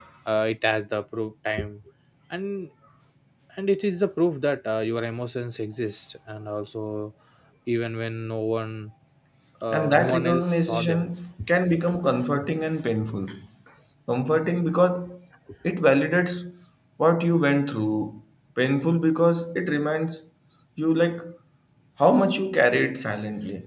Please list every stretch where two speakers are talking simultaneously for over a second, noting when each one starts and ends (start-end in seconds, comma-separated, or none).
9.7-11.1